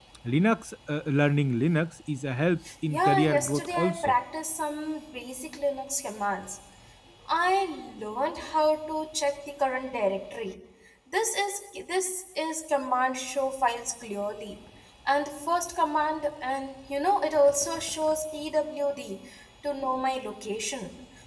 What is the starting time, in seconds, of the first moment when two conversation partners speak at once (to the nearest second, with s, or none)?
3 s